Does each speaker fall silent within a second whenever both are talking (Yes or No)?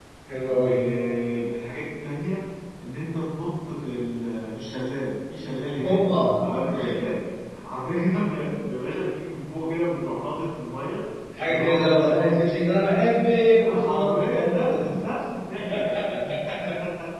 No